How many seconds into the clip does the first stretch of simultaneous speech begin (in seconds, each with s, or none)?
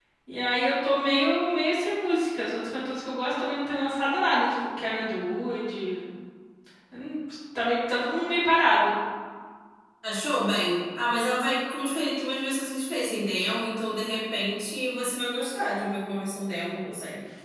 none